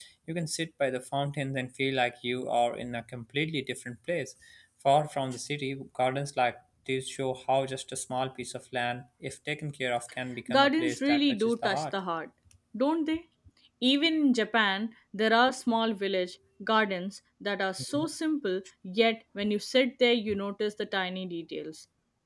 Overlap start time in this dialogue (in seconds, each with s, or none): 10.5 s